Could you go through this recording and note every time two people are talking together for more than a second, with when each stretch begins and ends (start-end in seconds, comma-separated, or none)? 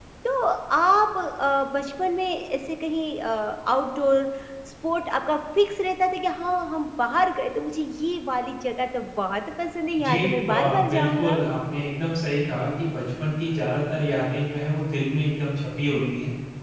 10.1-11.4